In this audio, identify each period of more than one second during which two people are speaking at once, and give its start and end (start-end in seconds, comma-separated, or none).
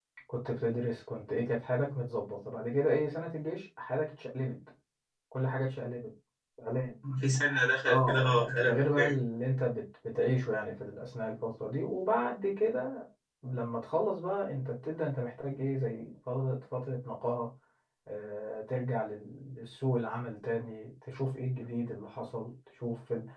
7.8-9.1